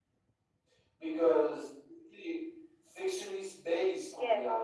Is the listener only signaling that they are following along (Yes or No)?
No